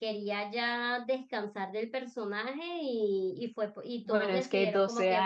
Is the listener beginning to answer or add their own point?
Yes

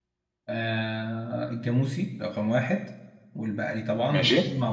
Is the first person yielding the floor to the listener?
No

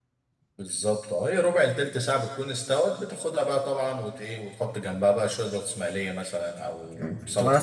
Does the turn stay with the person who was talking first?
No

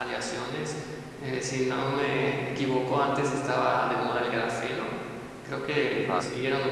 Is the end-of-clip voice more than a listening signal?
No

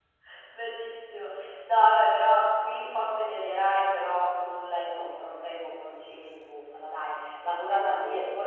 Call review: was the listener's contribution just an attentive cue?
Yes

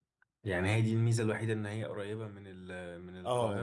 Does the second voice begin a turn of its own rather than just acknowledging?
Yes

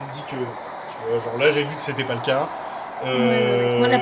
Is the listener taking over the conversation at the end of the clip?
Yes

